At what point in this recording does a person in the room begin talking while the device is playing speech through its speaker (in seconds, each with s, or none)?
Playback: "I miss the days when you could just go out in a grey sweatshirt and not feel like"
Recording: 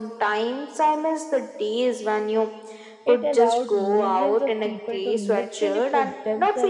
3.1 s